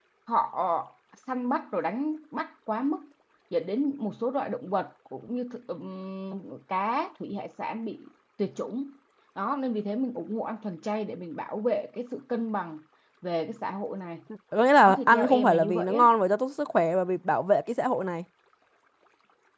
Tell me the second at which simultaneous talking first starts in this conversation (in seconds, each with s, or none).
14.8 s